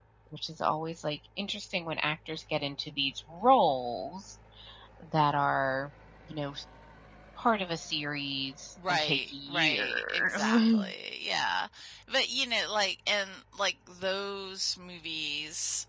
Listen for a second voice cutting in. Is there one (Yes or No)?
Yes